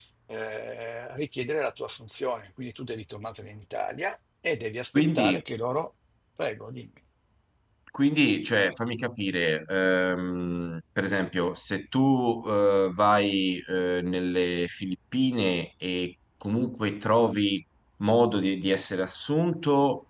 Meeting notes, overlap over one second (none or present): none